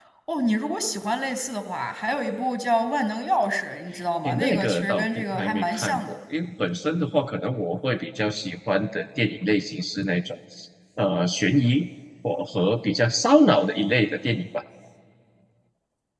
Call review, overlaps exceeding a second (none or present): present